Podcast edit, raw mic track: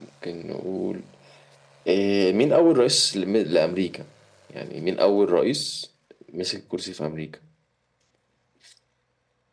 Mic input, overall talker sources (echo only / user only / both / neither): echo only